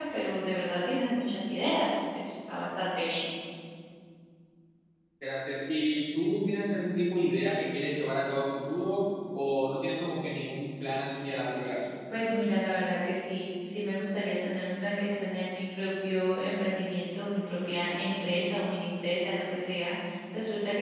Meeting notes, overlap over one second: none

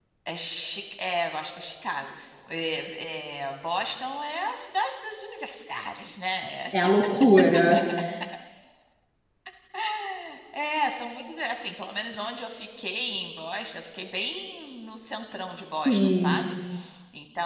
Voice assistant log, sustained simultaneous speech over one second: none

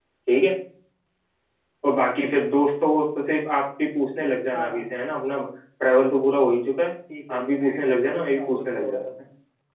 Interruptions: present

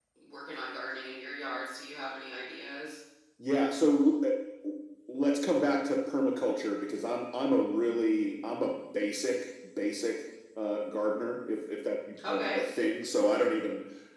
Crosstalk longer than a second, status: none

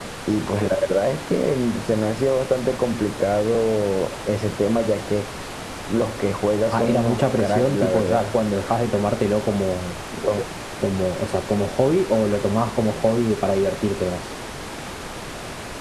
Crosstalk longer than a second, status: present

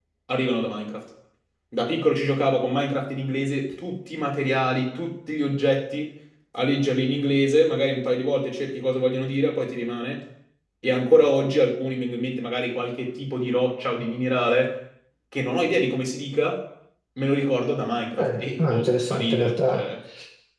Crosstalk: present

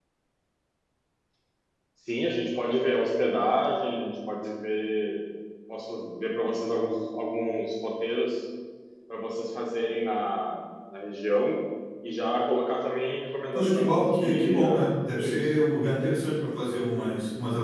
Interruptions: present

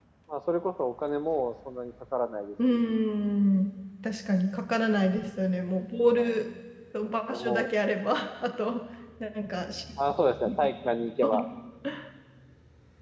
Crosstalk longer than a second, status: none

